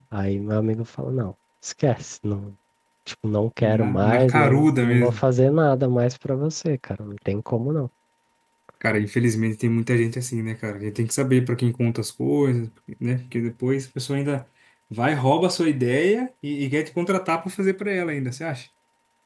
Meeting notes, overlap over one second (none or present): present